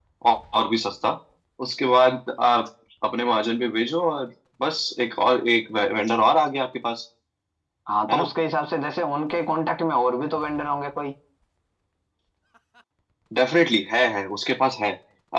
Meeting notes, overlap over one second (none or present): none